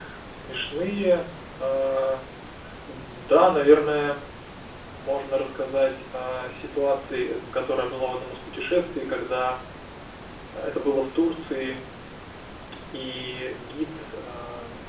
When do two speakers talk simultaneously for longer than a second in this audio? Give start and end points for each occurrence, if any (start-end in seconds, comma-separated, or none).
none